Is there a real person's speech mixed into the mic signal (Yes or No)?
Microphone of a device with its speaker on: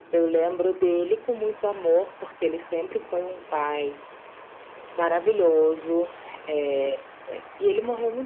No